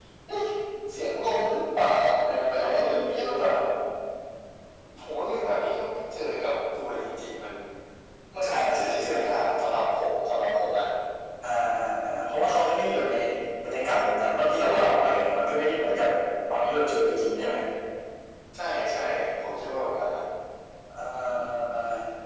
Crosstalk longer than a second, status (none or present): present